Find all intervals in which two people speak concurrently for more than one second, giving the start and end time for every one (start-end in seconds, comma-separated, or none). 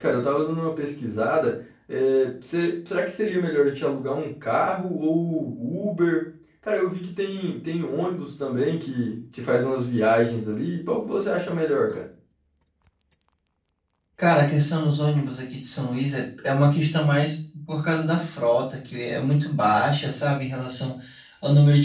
none